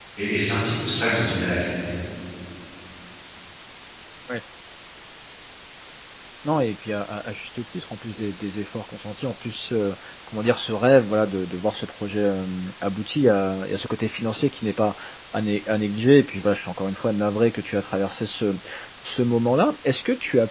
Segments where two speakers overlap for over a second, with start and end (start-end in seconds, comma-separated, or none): none